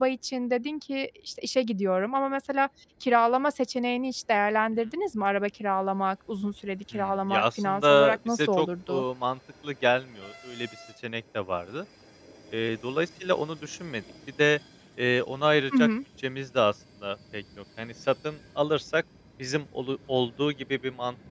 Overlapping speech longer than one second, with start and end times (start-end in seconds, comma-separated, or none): 6.9-9.0